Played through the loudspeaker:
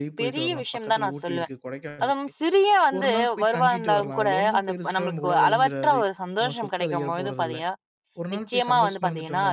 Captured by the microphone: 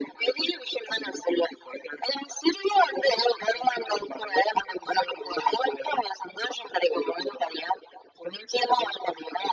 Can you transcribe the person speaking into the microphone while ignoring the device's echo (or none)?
none